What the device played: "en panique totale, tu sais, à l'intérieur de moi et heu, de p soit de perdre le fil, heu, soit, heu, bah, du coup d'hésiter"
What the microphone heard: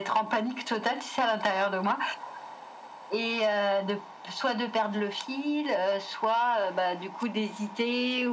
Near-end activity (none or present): none